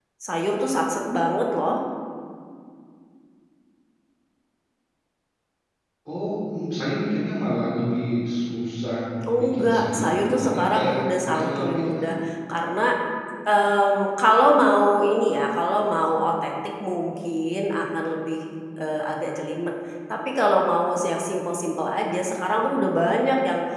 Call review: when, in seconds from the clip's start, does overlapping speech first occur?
9 s

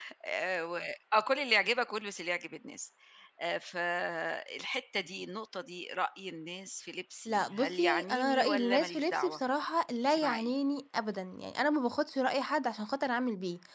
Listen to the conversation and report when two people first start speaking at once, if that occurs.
7 s

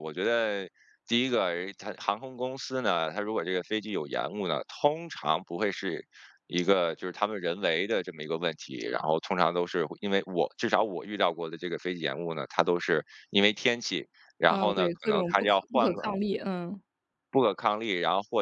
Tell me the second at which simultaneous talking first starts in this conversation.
14 s

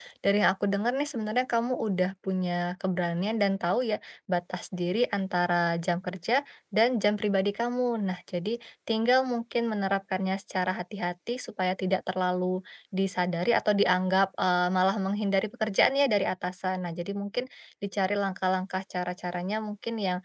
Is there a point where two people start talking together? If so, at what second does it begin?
none

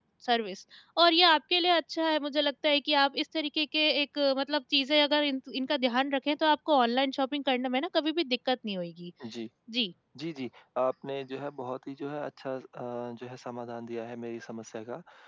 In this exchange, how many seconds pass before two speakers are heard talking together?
none

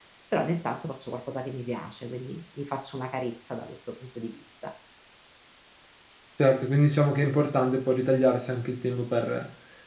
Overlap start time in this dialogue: none

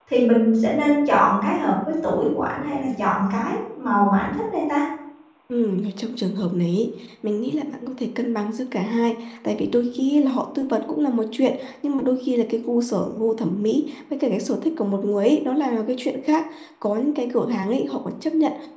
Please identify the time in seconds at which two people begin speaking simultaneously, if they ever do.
none

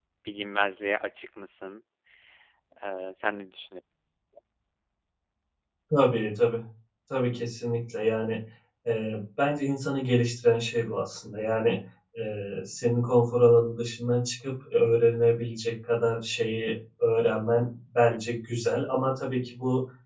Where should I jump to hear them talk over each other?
none

